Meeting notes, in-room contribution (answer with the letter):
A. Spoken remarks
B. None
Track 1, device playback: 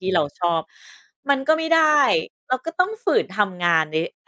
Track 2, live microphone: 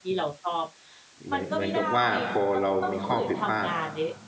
A